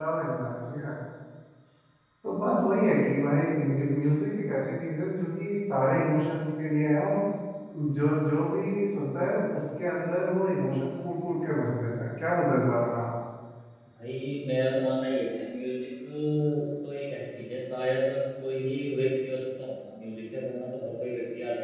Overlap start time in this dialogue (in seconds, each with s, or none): none